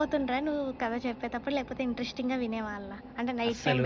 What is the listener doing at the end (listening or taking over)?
taking over